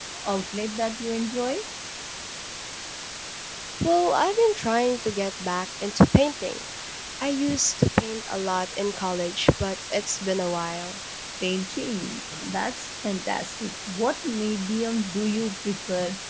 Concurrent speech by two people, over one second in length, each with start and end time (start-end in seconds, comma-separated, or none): none